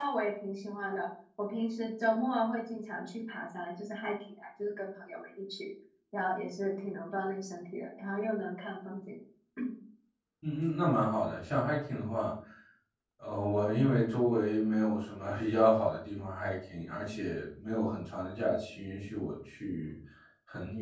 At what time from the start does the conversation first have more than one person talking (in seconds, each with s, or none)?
none